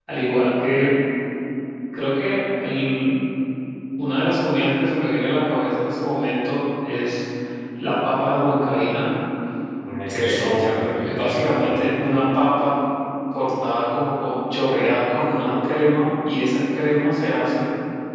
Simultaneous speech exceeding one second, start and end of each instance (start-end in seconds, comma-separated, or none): 10.1-11.7